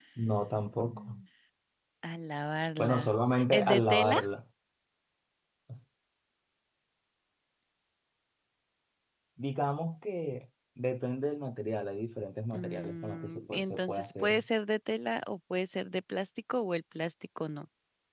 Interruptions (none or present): present